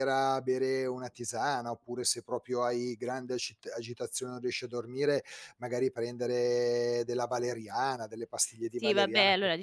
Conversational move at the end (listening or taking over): taking over